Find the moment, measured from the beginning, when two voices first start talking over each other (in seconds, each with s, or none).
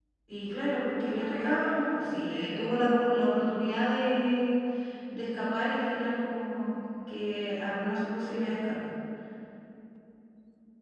1.1 s